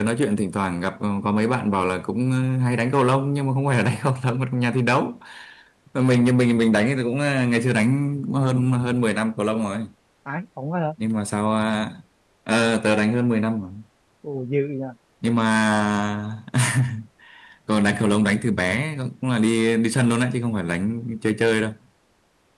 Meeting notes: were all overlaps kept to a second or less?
Yes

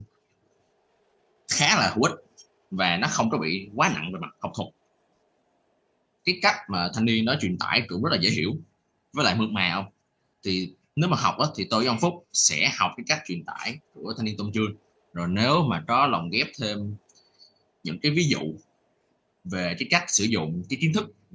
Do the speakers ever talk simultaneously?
No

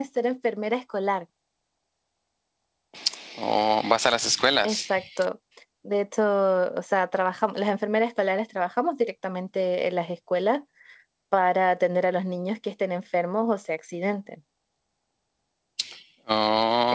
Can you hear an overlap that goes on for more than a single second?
No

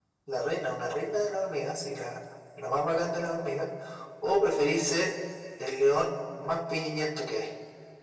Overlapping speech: No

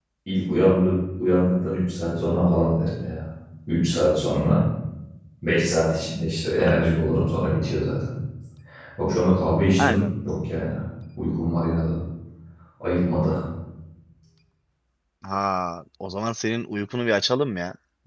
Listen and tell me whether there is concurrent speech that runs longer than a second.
No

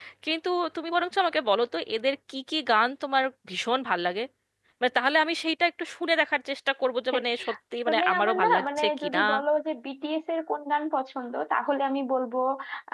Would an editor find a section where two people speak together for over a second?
Yes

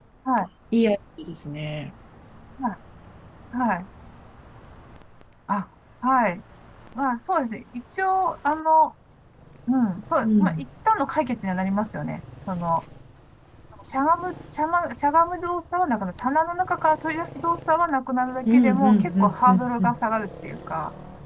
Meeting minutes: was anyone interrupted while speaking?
Yes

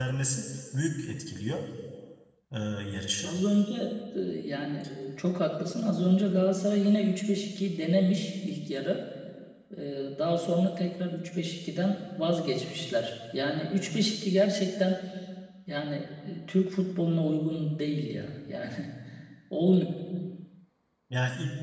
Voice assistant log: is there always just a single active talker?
Yes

